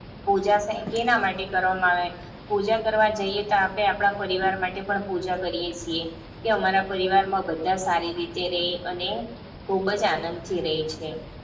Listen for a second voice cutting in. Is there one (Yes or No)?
No